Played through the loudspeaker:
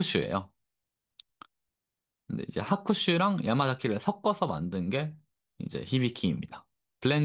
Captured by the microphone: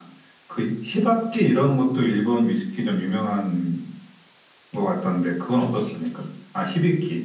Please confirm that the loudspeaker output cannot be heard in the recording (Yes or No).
Yes